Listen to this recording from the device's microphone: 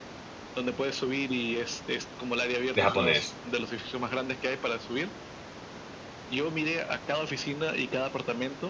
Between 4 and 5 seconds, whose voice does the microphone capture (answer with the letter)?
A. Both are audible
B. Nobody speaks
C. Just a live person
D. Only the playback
D